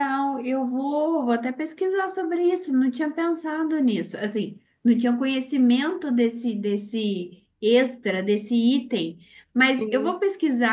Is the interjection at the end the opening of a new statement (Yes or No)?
No